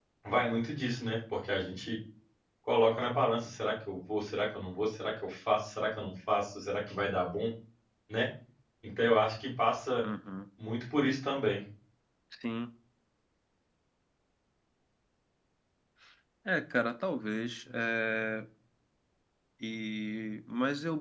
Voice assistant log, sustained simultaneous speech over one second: none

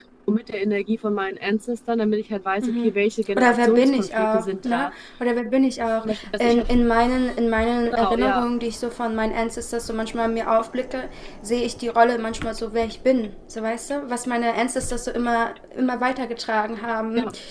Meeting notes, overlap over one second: present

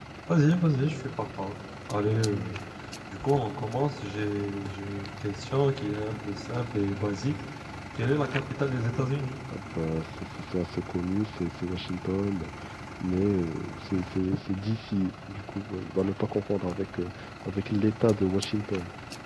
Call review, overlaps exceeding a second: none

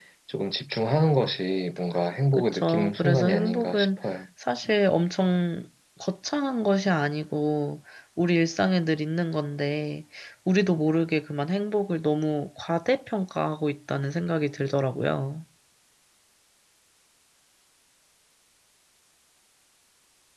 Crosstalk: present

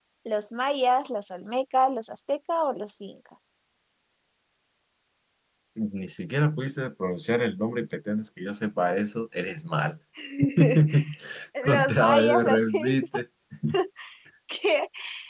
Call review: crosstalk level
present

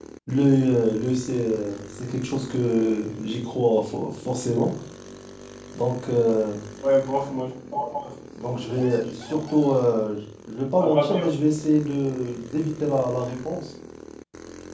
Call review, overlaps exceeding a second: present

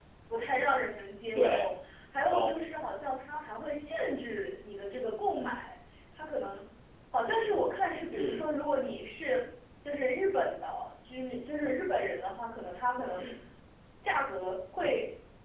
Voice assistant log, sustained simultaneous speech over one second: none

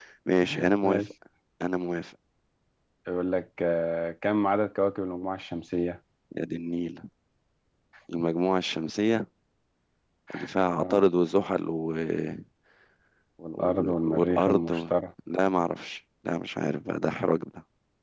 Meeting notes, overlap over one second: present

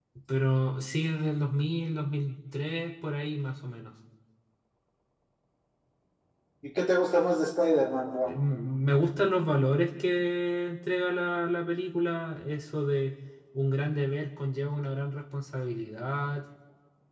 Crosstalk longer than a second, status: none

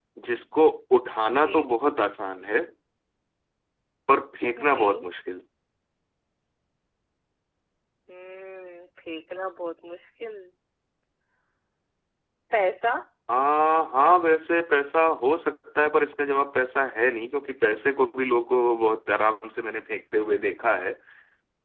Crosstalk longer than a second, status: none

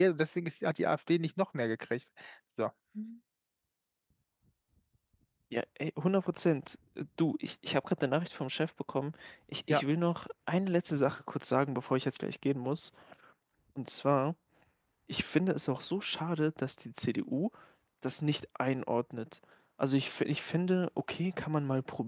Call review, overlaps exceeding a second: none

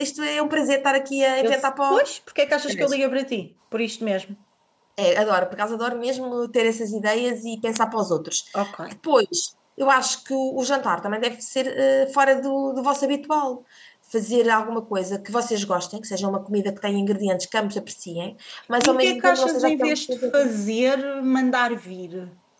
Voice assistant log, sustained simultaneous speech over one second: present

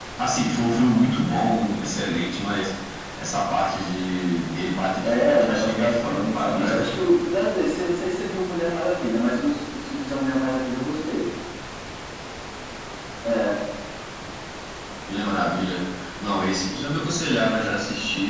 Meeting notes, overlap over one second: present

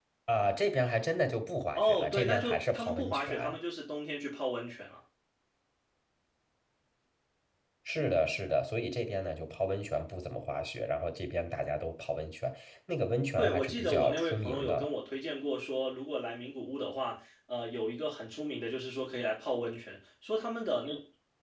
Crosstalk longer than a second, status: present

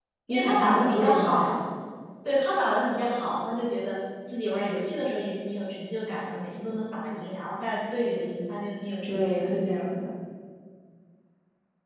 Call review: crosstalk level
present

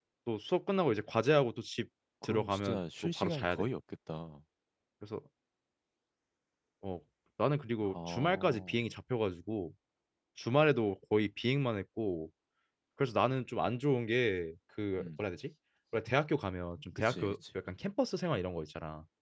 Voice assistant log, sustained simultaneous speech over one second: present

